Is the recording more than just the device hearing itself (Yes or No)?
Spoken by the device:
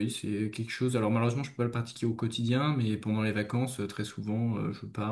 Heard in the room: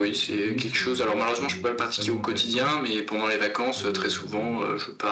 Yes